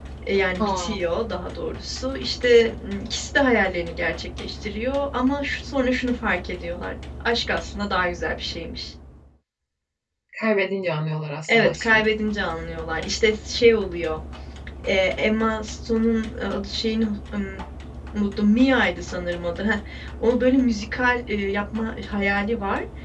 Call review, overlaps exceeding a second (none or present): none